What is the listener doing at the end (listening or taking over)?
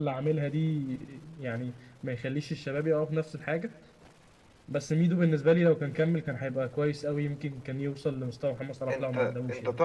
taking over